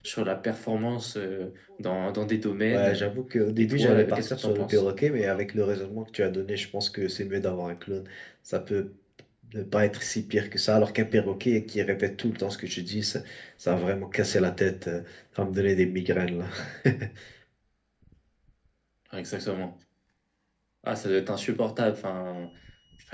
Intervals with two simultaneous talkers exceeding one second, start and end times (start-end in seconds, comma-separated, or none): 3.6-4.8